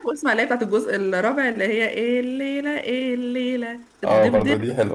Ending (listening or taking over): taking over